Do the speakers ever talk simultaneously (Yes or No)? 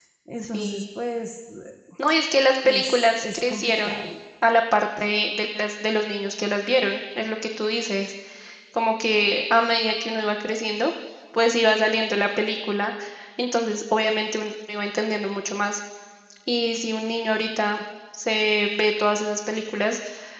Yes